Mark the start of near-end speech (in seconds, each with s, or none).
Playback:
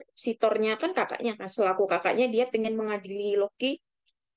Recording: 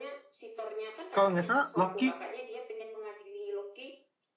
1.1 s